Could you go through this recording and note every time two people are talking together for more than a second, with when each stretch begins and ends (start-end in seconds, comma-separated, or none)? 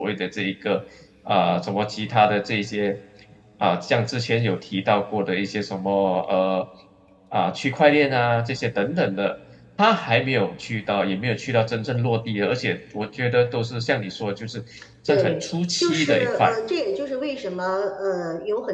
15.1-16.5